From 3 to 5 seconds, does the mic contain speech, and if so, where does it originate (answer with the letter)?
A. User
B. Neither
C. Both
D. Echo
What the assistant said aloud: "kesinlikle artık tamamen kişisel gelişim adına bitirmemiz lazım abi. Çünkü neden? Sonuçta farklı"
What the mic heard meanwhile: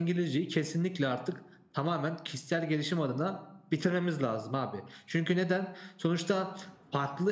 D